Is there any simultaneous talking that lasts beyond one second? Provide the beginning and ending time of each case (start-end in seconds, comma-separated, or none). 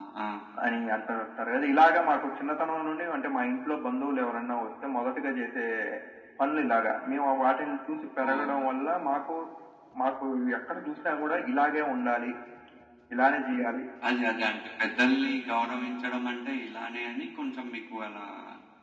none